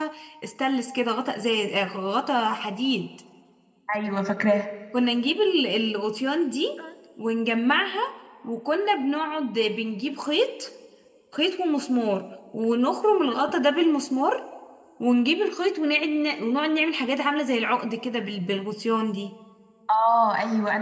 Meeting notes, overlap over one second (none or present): none